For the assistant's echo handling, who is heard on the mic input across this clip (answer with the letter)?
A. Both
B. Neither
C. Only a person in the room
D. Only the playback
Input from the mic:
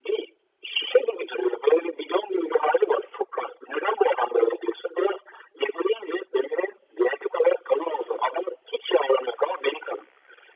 D